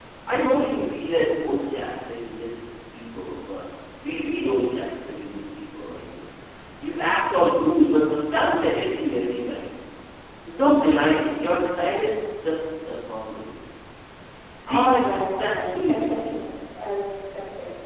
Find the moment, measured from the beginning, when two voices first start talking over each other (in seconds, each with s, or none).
14.7 s